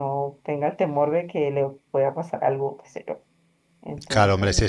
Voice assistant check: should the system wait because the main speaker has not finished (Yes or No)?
No